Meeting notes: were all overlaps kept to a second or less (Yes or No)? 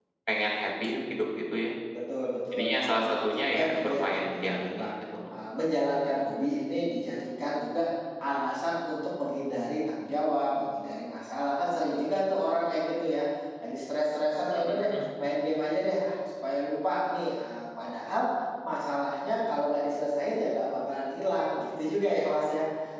No